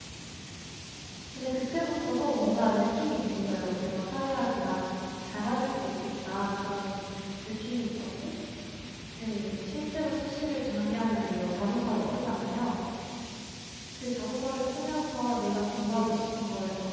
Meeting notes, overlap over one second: present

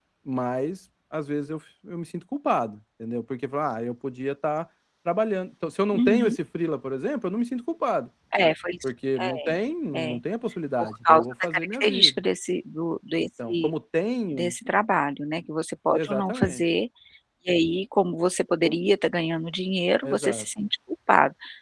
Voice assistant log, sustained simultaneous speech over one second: present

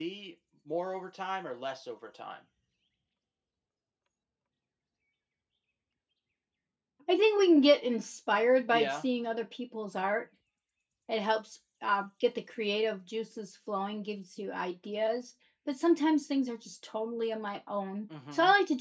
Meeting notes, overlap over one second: none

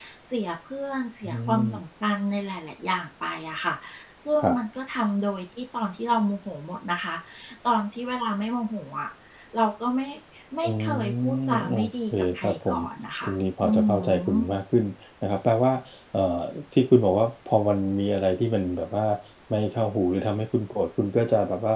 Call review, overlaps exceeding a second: present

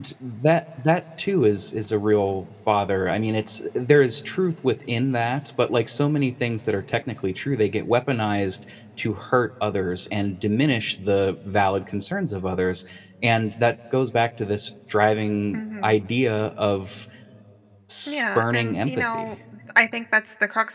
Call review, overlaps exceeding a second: present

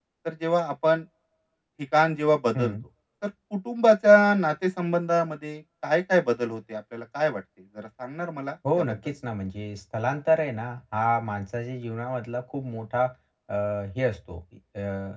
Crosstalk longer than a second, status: none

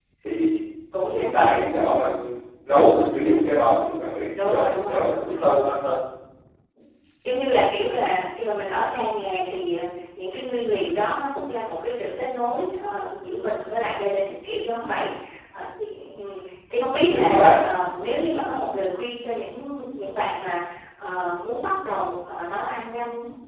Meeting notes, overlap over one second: present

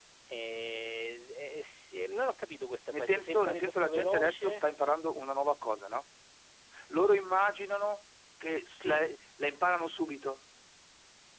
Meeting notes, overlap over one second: present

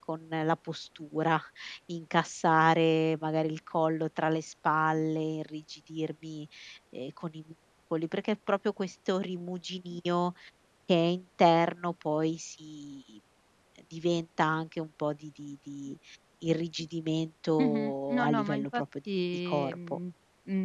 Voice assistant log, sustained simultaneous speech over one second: present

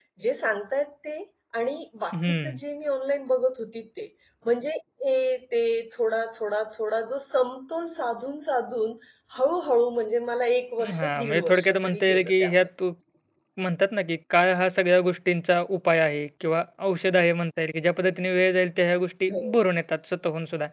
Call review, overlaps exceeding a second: present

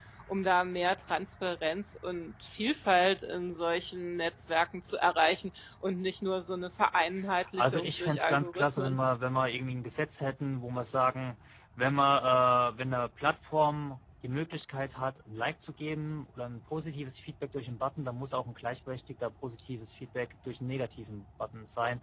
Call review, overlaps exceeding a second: present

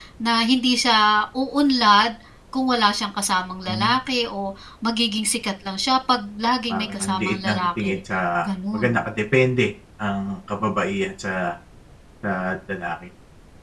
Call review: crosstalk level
present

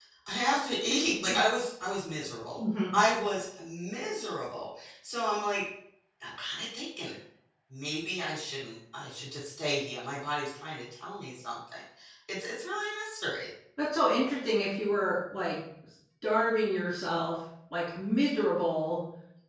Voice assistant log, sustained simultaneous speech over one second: none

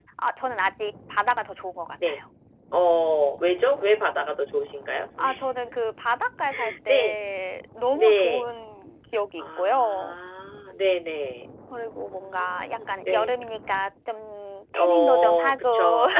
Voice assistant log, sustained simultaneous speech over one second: present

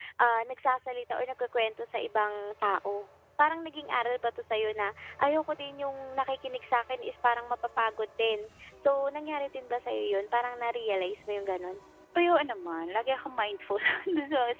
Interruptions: none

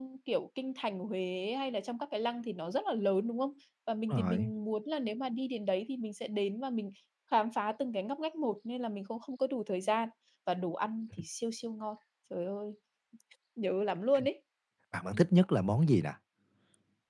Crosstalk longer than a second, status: none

